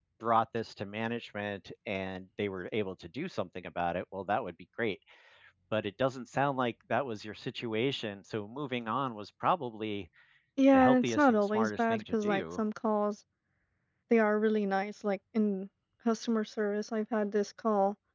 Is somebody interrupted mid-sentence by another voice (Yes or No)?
Yes